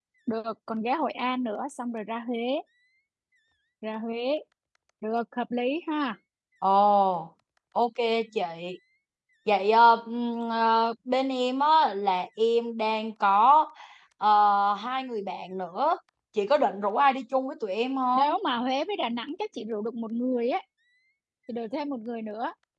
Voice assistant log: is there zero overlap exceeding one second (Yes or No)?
Yes